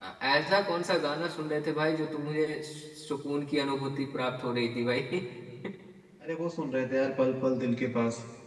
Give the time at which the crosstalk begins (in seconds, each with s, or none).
none